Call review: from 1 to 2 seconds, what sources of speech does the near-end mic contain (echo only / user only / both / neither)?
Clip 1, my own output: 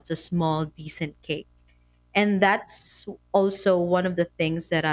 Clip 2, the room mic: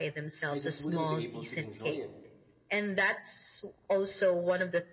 both